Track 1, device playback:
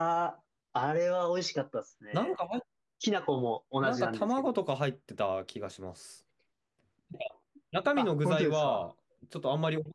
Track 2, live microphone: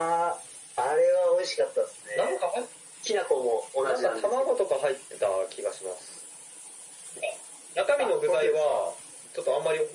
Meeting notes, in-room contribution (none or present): none